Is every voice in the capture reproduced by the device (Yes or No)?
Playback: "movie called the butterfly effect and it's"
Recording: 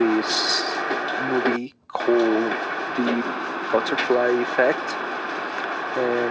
Yes